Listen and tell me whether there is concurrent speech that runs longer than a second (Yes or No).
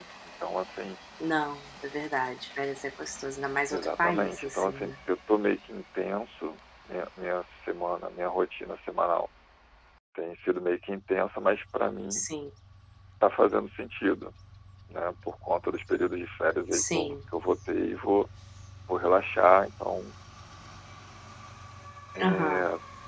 Yes